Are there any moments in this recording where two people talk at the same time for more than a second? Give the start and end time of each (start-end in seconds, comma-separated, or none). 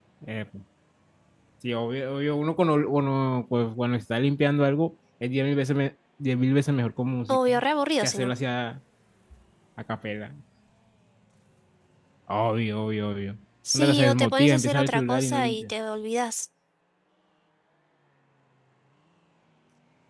13.7-15.7